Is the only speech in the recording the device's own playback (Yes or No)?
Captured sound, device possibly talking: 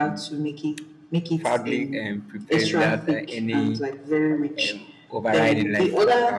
No